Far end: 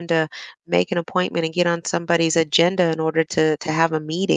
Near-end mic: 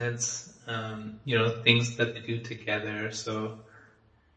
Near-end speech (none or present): present